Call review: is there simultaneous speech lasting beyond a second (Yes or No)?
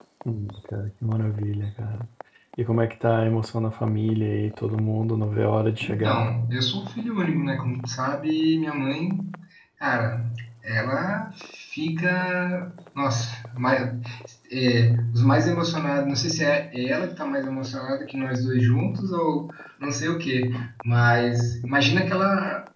No